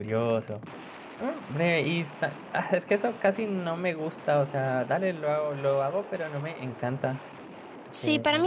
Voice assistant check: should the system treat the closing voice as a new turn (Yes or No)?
Yes